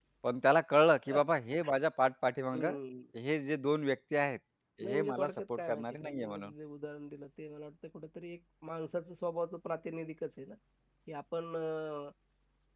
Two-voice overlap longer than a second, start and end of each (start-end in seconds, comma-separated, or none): 4.9-6.5